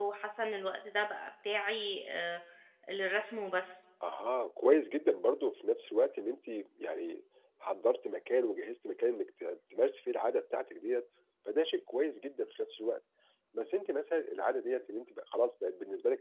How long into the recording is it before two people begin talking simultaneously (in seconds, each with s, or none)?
none